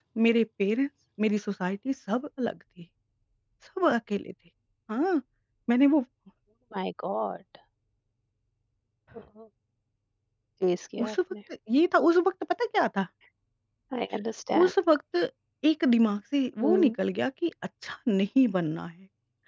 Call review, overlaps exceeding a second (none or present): none